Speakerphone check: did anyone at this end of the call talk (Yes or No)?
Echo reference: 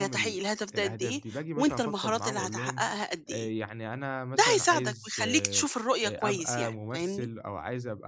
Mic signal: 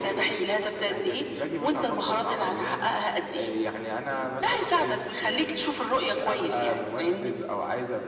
No